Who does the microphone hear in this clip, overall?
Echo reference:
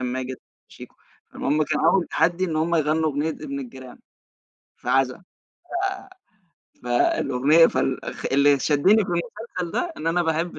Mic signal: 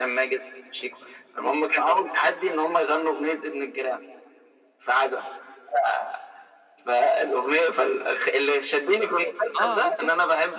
both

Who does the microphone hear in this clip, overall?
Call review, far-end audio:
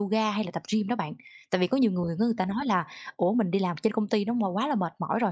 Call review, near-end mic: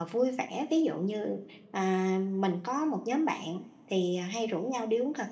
user only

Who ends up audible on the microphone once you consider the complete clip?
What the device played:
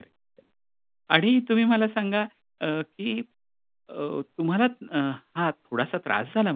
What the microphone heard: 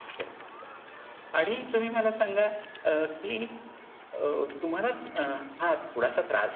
echo only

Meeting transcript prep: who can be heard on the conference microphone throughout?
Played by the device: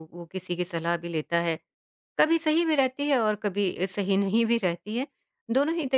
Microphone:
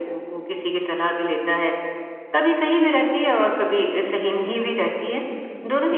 echo only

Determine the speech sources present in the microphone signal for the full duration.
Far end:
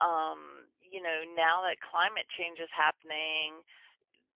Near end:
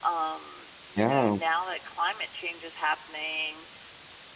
both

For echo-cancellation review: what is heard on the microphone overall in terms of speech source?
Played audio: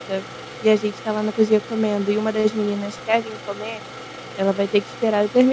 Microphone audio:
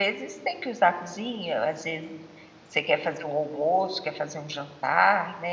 user only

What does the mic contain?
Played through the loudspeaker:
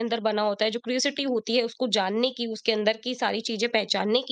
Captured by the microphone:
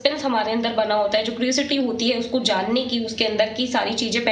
echo only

